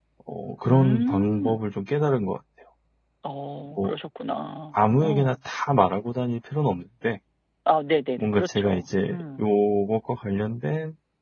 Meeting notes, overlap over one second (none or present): present